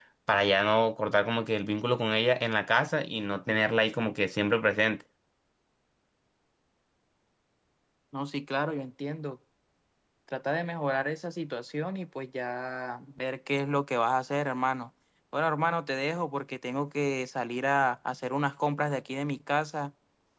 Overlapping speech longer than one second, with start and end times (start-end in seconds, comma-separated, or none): none